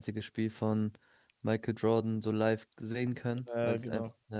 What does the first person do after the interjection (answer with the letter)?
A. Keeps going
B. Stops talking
A